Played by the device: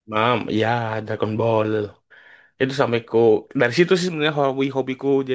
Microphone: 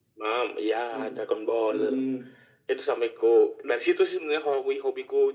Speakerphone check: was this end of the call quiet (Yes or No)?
No